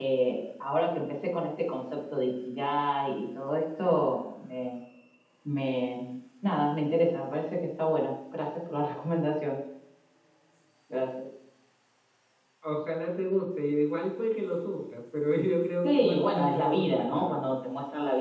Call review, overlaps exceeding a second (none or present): present